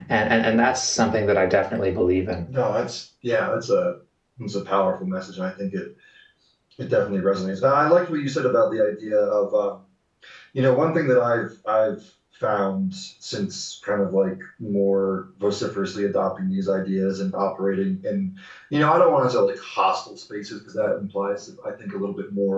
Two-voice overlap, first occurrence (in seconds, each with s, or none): none